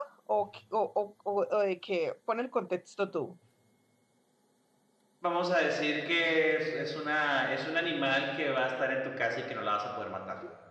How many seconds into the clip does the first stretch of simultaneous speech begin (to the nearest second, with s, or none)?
none